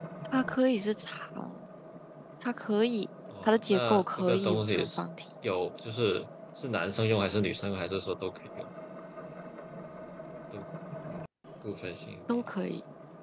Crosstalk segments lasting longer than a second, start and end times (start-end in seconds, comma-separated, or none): 3.4-5.1